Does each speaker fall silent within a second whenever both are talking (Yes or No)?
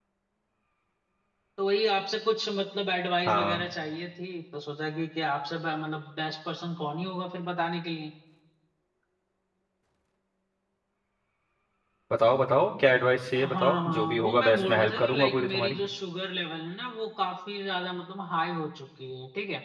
No